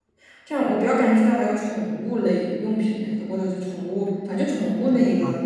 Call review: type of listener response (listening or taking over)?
taking over